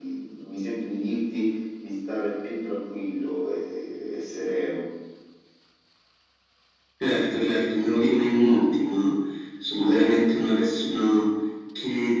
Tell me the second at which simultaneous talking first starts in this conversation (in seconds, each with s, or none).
none